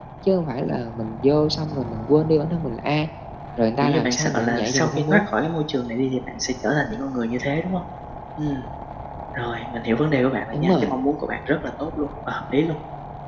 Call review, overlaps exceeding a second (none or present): present